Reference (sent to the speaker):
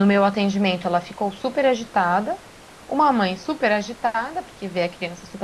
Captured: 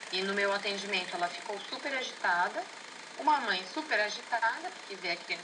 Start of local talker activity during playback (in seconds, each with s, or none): none